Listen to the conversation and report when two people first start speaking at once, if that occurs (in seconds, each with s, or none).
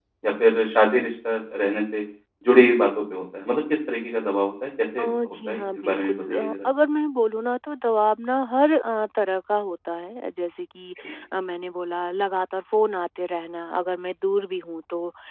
5.0 s